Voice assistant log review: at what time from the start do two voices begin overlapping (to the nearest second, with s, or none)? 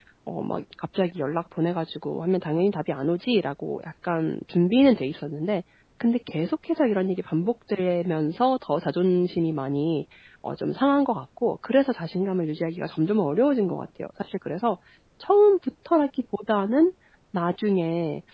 none